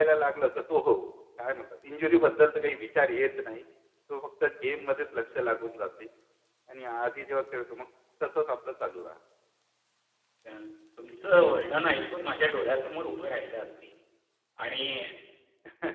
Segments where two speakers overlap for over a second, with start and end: none

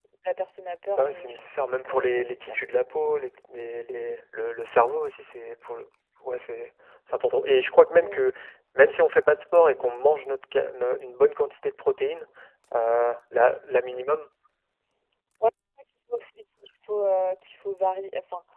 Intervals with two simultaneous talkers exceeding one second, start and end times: 0.9-2.6

